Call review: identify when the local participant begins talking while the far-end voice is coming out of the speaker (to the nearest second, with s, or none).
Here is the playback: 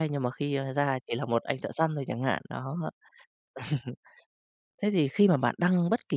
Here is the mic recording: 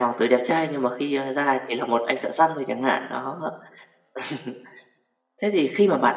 none